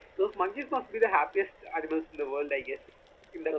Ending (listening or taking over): taking over